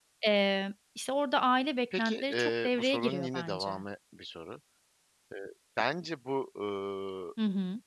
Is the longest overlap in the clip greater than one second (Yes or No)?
Yes